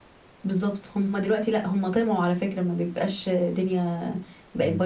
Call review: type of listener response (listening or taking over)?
listening